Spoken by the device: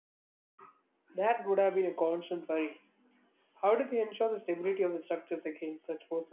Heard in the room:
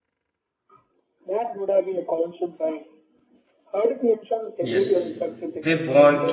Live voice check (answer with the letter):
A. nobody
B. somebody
B